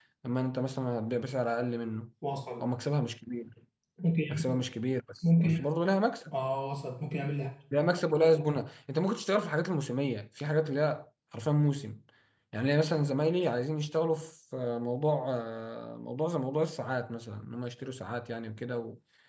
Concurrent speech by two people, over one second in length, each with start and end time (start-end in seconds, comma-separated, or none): none